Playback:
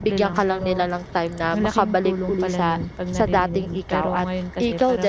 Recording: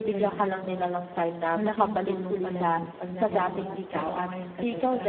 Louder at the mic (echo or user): echo